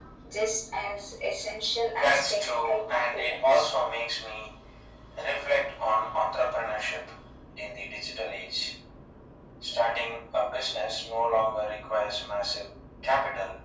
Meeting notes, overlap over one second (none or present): present